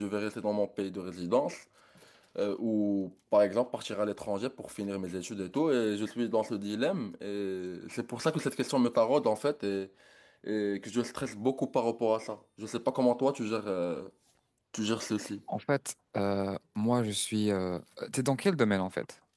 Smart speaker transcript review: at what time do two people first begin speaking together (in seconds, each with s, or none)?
none